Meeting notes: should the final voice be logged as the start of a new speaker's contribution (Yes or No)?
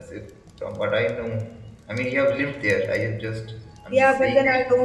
Yes